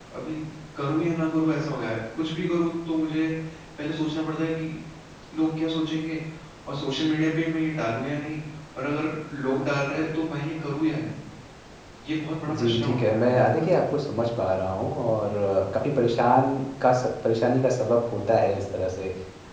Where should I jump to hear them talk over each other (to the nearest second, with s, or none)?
12 s